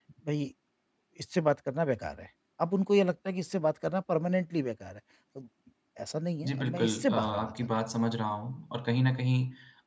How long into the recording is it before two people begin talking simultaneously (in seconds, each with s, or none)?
6.5 s